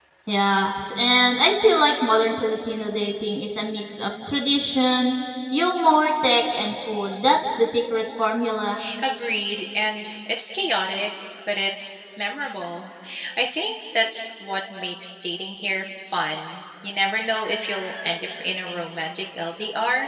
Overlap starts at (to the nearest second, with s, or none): none